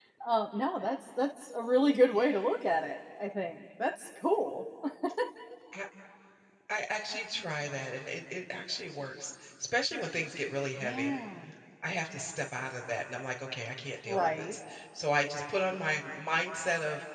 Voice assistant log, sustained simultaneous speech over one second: none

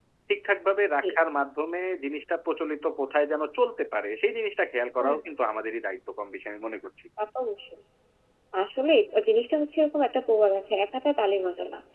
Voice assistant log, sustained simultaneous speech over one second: none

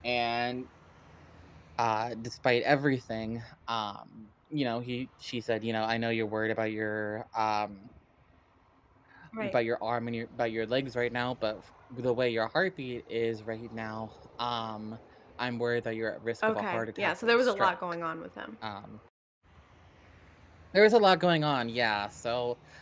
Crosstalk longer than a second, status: present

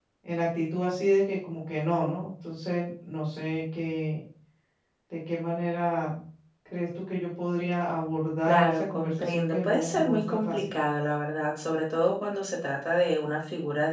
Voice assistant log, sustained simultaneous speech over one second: present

